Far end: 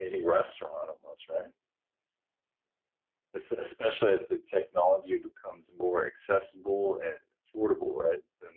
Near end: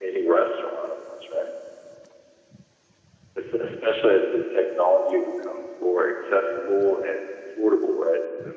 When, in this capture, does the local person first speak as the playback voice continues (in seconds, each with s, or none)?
none